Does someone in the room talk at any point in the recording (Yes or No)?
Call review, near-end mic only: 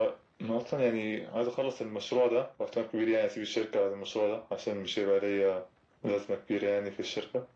No